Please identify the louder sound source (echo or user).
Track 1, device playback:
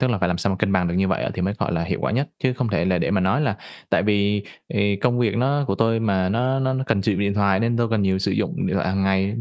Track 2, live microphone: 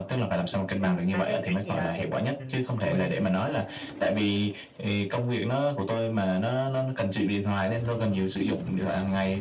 echo